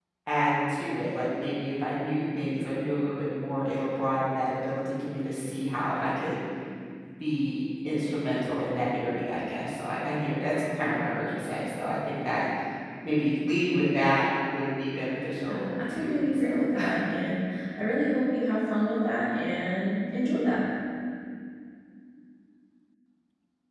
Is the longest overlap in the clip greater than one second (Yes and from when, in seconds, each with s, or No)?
Yes, from 15.3 s